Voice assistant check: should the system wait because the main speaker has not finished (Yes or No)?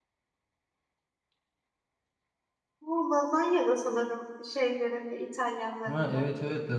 No